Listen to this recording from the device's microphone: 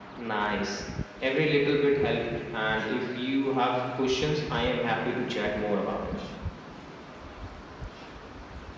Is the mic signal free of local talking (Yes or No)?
Yes